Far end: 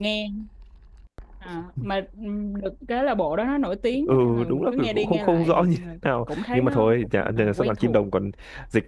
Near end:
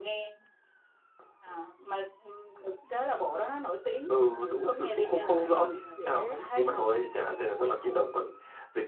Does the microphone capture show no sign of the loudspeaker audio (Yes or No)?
No